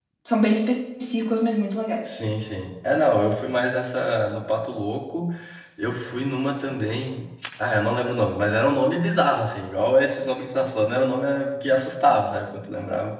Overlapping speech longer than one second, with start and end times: none

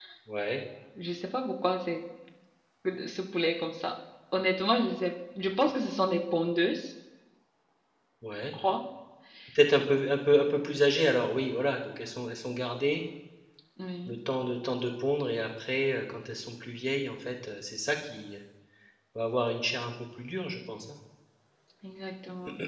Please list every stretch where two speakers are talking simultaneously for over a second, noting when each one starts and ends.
none

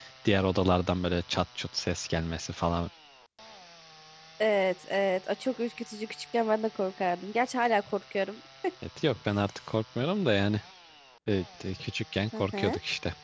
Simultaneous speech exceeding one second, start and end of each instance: none

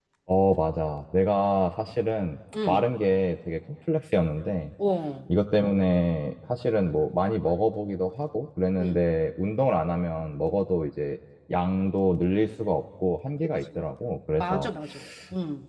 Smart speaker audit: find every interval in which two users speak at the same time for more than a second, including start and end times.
none

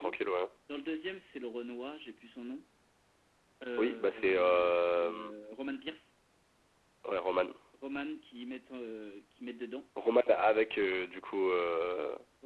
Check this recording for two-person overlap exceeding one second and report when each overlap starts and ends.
3.8-5.3

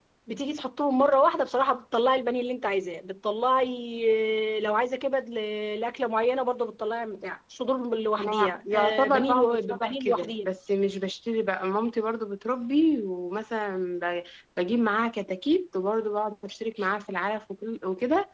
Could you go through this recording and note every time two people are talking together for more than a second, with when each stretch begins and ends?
8.2-10.5

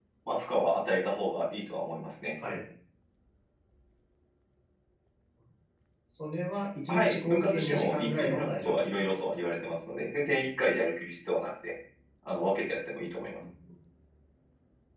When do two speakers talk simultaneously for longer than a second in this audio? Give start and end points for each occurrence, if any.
6.9-9.3

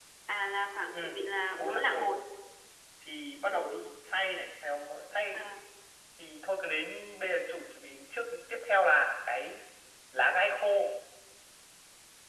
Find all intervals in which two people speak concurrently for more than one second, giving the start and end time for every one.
none

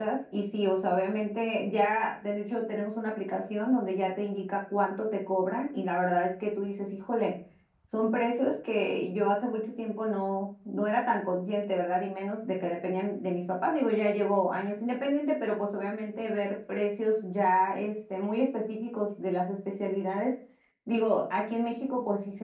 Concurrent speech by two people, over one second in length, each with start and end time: none

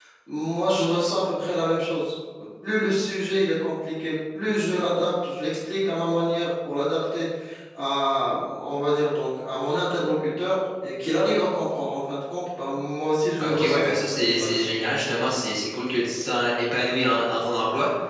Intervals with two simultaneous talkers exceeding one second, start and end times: 13.4-14.7

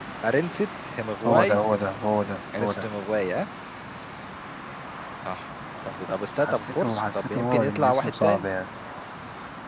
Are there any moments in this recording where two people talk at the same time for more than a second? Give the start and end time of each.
6.4-8.5

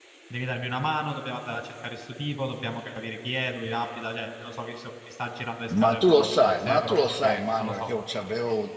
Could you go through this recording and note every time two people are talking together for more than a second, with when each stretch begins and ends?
5.8-7.9

